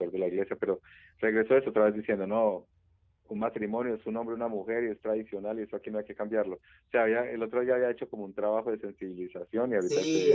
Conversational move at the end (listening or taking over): taking over